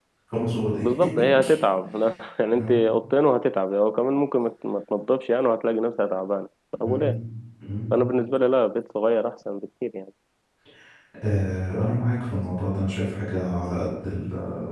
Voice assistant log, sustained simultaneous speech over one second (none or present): none